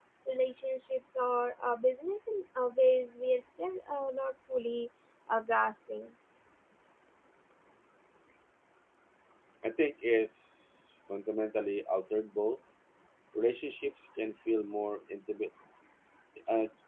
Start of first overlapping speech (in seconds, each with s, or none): none